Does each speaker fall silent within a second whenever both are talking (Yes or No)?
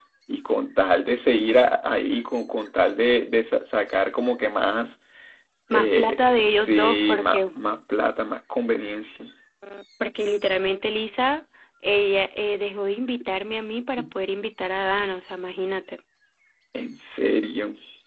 No